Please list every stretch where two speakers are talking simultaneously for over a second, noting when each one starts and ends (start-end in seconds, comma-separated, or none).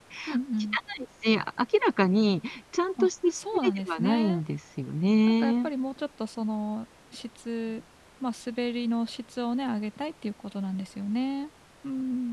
3.0-4.4